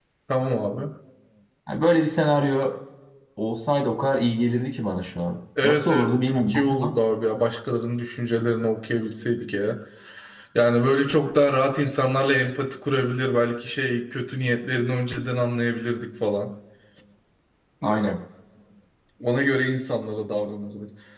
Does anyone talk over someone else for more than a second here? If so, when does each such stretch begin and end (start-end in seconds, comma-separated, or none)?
5.6-7.0